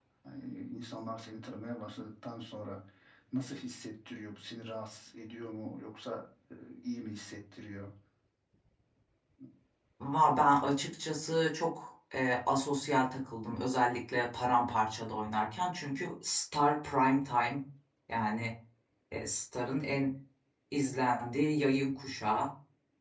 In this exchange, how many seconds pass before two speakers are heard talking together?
none

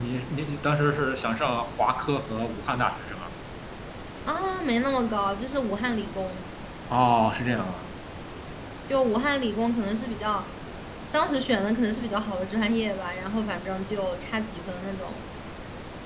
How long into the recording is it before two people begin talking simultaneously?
none

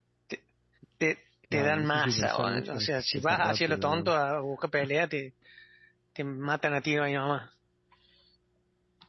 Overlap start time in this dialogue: 2 s

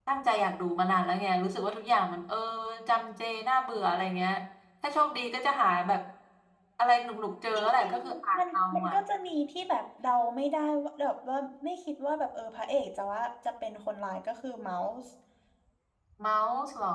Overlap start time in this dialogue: 8 s

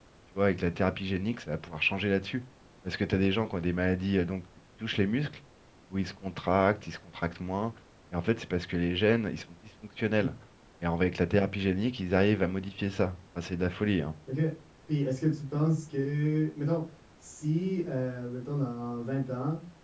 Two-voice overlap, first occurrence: none

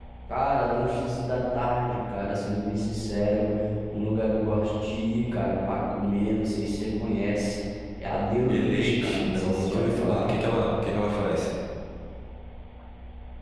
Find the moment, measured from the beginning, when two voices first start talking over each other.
8 s

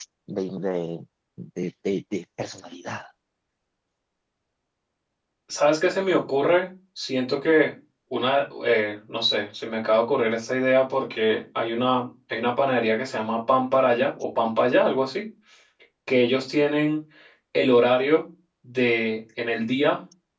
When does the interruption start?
none

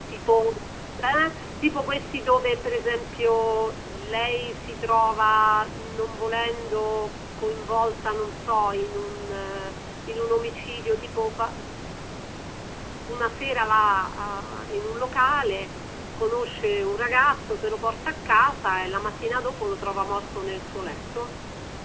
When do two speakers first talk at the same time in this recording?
none

